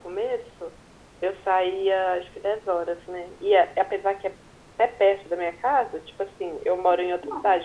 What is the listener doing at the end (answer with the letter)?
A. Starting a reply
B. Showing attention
B